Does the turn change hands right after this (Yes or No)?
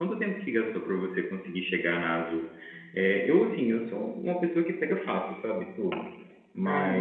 No